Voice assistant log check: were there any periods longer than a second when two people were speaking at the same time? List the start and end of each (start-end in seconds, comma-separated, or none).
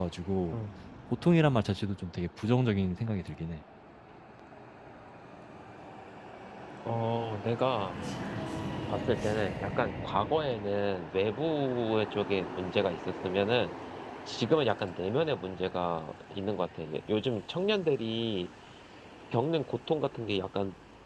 none